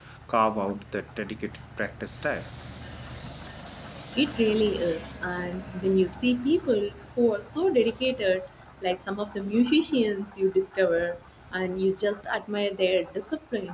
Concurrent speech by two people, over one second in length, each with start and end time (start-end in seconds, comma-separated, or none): none